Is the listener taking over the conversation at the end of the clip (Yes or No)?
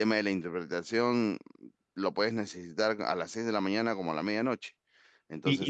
Yes